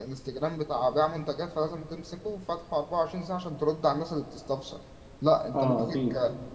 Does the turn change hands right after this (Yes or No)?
No